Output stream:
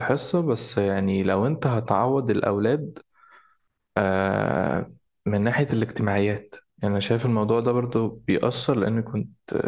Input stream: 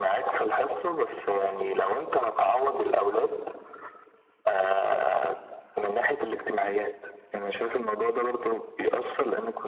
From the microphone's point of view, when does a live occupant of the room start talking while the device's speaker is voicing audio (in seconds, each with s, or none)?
none